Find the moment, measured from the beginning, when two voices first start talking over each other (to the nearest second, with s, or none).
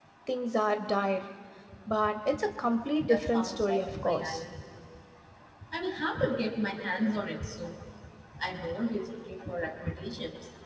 3 s